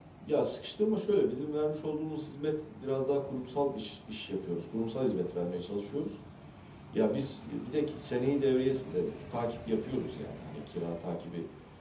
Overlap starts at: none

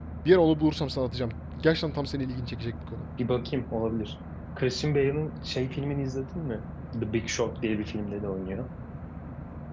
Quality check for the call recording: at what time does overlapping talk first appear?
none

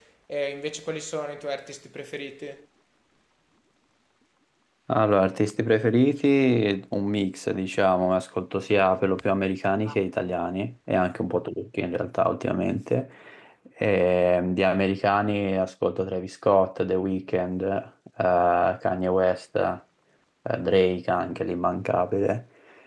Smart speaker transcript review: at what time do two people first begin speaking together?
none

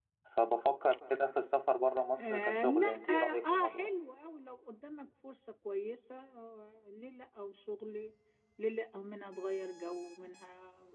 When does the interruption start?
2.2 s

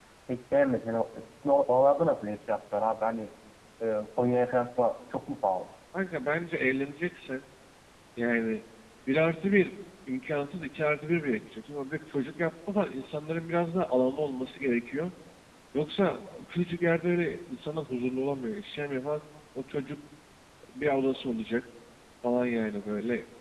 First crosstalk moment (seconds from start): none

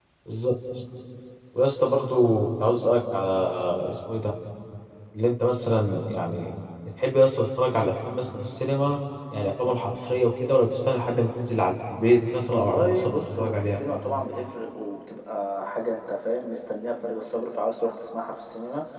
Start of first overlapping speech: 12.5 s

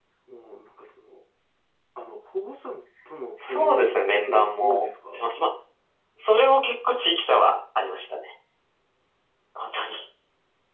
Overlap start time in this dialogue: 3.4 s

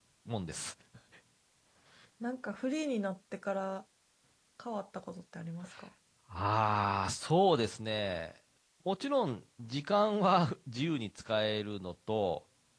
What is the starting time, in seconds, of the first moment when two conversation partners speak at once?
none

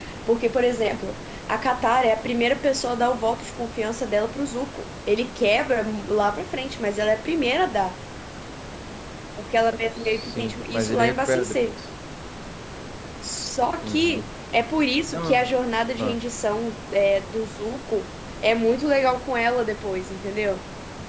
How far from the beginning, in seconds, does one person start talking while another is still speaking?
10.0 s

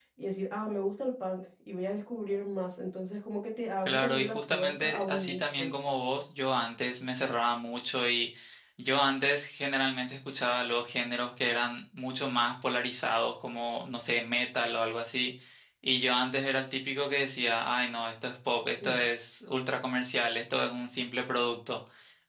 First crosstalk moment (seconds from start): 3.9 s

